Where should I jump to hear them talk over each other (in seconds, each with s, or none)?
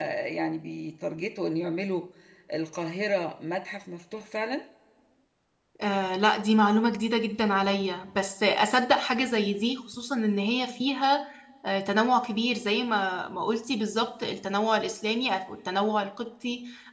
none